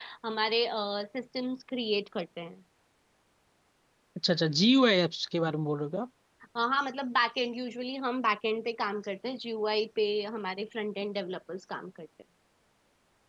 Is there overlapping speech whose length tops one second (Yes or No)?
No